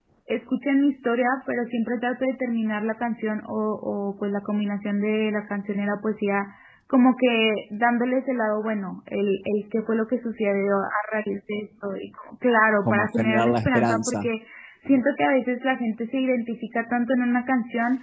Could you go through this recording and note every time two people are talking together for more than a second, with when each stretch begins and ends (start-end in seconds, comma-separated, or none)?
12.8-14.3